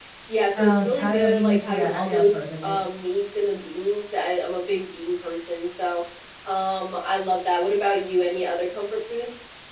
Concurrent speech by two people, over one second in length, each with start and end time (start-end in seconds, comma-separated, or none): 0.6-2.8